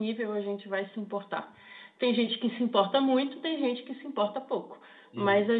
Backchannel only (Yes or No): Yes